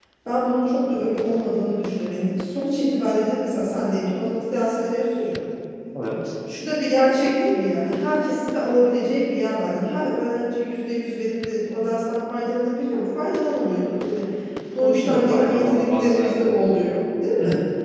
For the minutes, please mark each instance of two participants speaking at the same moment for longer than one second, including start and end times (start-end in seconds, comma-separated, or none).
14.8-16.5